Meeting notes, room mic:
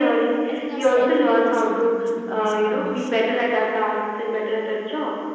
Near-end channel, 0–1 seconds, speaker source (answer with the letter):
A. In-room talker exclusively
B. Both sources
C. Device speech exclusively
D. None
B